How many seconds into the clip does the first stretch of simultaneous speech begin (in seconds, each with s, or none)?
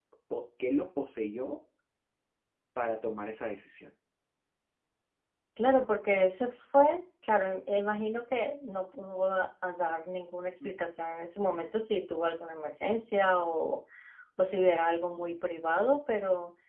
none